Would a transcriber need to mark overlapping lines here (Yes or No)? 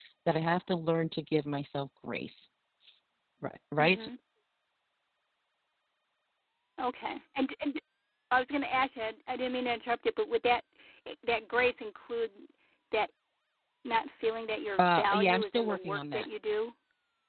Yes